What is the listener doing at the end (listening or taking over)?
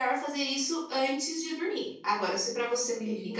listening